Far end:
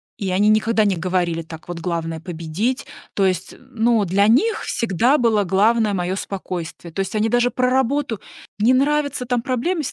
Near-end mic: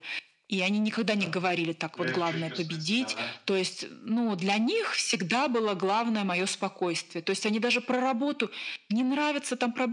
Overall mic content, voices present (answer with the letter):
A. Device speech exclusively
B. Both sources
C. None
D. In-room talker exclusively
B